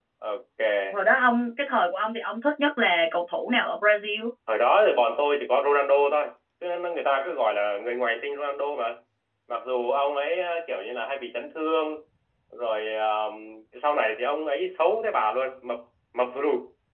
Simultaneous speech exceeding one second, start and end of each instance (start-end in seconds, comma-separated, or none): none